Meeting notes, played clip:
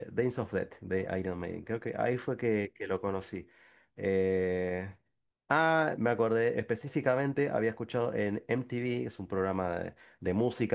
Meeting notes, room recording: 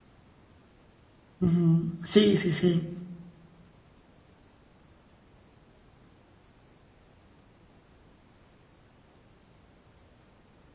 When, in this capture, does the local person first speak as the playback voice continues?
1 s

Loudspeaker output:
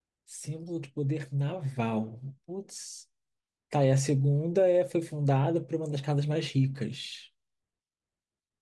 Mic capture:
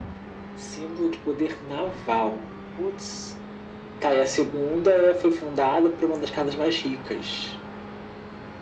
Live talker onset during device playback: none

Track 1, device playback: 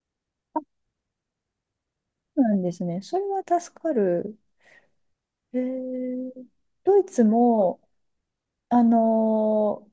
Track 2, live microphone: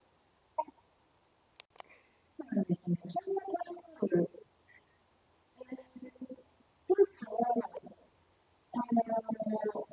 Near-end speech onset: none

